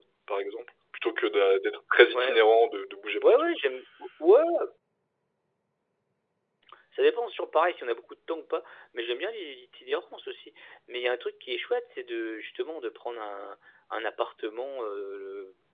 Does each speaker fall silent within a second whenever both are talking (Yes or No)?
Yes